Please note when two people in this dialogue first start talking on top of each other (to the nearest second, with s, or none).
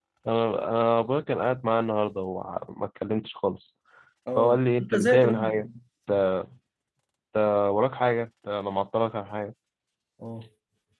4 s